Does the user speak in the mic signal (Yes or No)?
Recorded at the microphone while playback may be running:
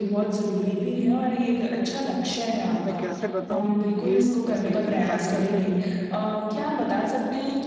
Yes